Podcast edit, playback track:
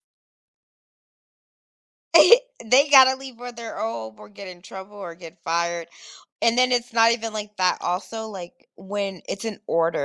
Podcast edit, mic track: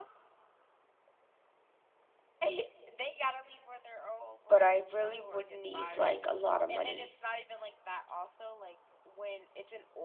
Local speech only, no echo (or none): but I really would need, like, a lot of money.